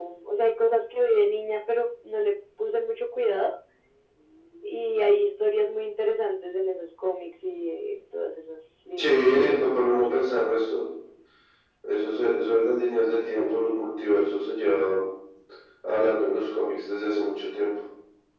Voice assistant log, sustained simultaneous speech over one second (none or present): present